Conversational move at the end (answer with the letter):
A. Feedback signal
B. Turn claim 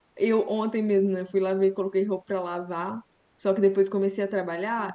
A